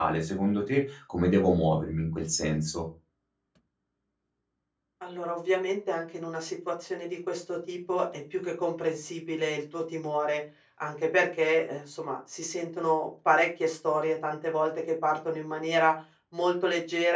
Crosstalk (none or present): none